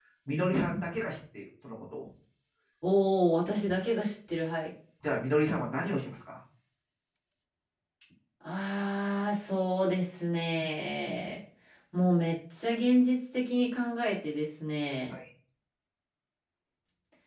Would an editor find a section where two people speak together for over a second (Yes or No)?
No